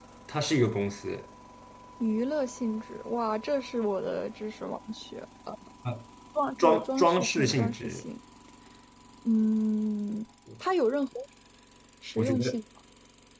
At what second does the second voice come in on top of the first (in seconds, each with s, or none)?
6.6 s